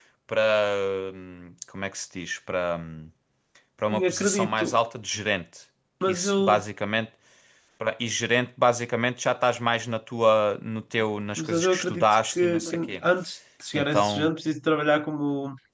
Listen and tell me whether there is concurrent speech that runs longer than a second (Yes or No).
Yes